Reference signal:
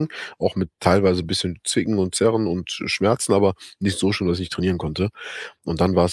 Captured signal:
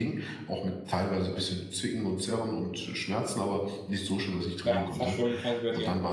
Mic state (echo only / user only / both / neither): both